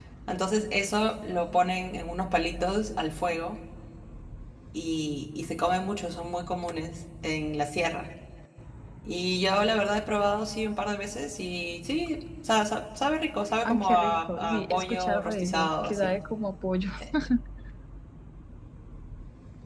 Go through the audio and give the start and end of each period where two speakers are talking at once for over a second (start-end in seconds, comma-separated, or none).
13.6-16.2